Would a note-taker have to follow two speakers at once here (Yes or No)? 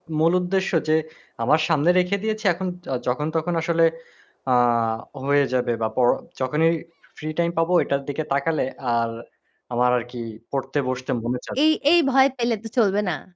No